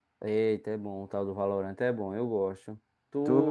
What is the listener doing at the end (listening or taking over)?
taking over